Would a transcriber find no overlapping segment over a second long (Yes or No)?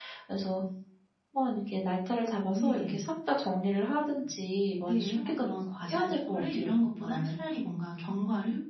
No